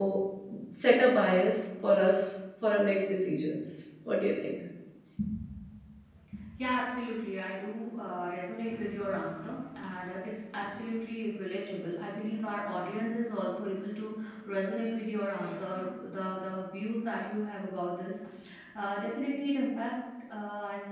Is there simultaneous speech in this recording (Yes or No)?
No